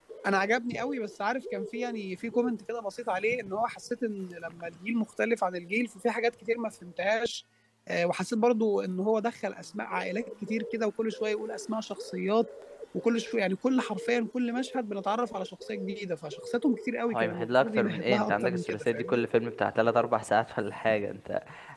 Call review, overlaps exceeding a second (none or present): present